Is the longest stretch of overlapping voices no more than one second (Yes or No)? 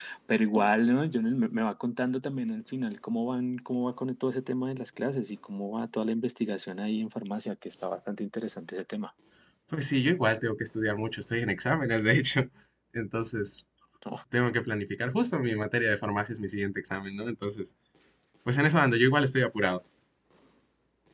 Yes